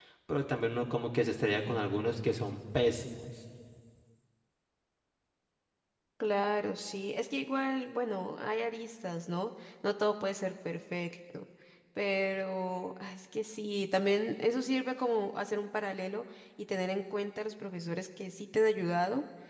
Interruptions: none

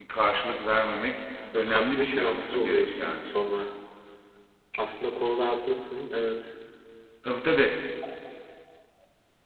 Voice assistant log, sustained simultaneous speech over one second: present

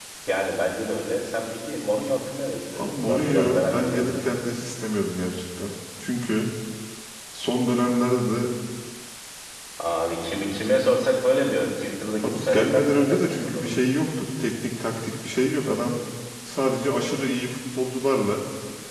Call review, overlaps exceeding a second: present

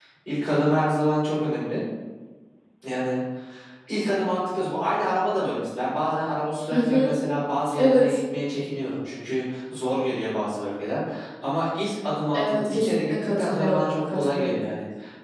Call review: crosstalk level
present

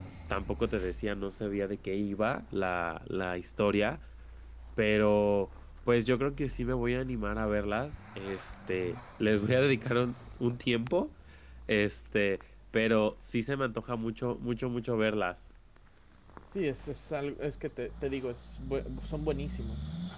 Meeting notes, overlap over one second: none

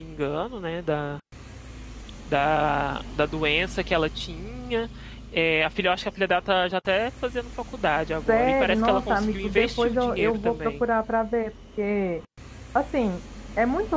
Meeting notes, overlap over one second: present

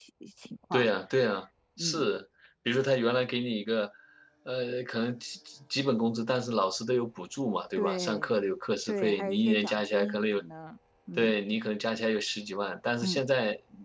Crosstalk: present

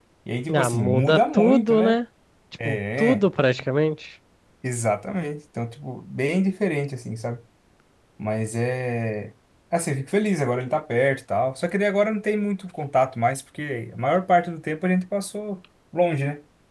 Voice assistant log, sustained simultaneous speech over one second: present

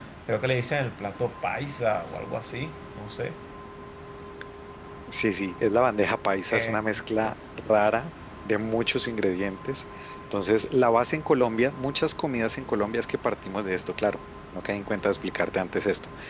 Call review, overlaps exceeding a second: none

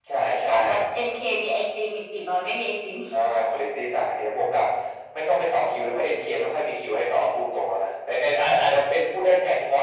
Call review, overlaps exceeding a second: none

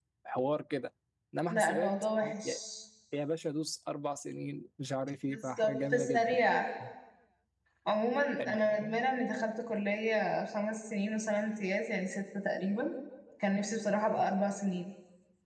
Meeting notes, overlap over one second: present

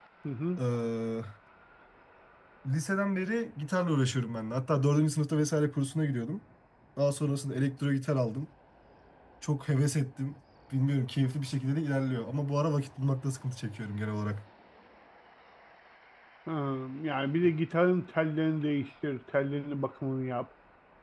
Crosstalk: none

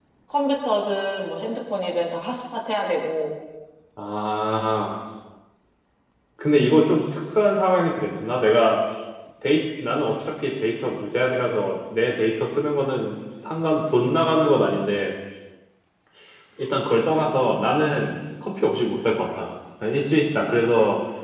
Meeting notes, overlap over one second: none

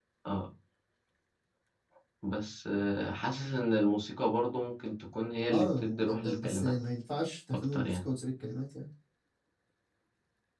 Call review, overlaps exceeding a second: present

